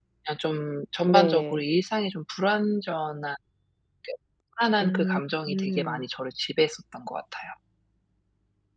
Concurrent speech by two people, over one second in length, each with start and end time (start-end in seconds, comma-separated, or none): 4.8-6.0